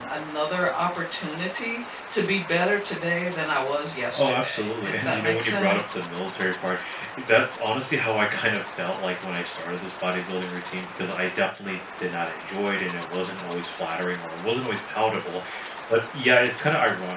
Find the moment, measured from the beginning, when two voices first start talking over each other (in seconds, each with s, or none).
4.2 s